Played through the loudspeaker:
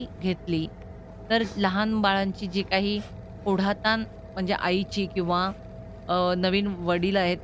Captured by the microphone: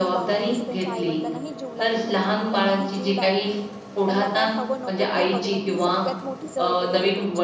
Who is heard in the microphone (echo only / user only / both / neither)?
both